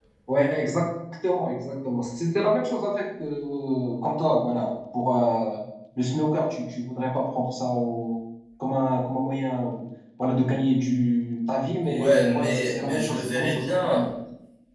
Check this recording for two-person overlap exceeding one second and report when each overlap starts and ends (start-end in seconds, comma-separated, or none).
11.8-14.0